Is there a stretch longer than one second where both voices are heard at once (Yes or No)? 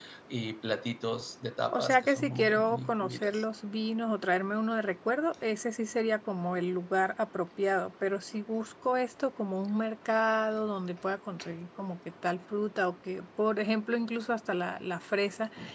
Yes